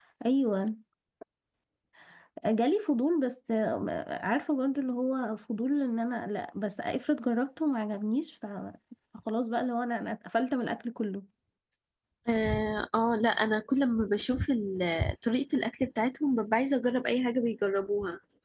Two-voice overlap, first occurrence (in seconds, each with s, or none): none